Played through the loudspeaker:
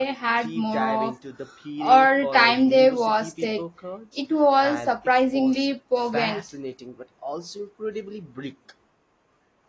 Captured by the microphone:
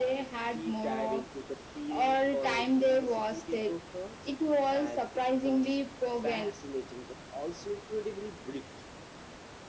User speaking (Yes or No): No